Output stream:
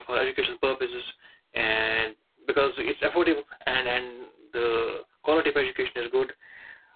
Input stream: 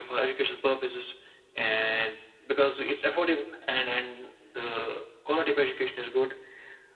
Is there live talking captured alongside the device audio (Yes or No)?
No